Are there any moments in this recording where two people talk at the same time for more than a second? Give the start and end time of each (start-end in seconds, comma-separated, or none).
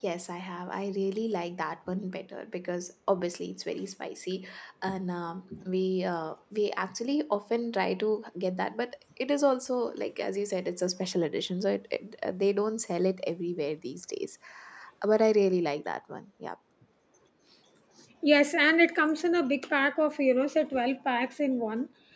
none